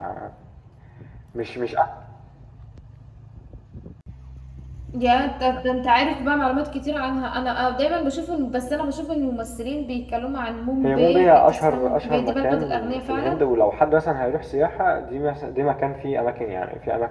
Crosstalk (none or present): present